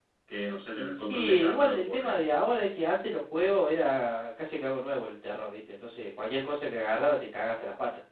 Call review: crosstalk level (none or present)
present